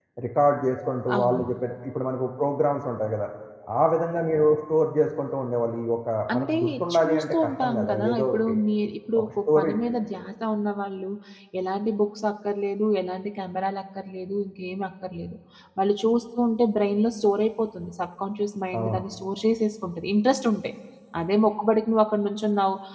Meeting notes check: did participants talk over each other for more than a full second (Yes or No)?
Yes